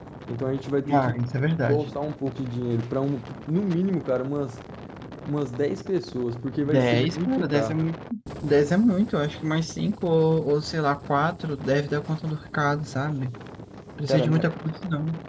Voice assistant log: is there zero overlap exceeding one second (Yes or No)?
No